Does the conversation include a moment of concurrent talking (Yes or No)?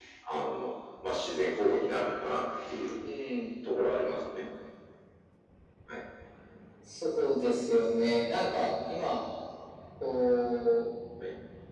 No